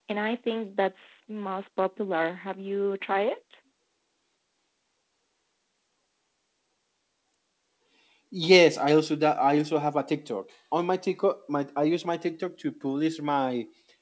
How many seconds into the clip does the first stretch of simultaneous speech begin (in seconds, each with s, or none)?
none